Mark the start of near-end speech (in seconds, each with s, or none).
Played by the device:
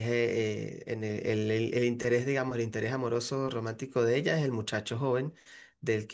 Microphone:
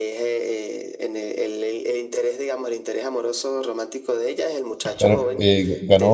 4.8 s